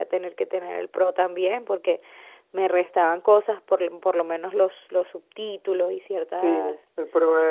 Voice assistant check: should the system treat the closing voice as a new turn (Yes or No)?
Yes